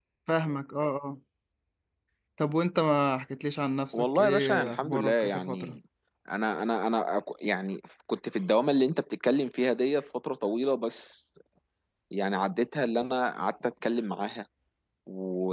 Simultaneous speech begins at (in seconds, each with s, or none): 3.9 s